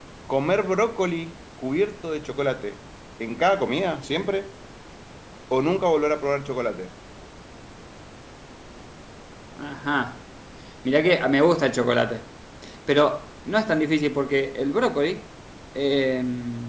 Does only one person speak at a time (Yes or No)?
Yes